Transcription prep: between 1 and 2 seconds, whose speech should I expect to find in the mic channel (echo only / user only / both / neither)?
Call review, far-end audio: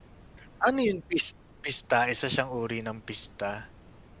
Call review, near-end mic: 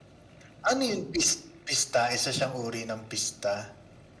echo only